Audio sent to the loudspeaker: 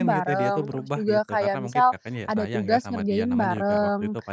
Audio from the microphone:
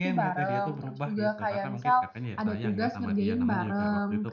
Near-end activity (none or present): none